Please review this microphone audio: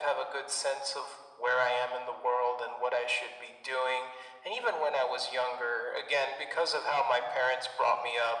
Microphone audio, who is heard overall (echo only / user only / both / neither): echo only